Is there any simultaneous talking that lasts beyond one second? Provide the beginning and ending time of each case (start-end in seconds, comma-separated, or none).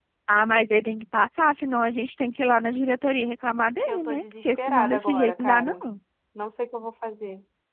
3.9-5.8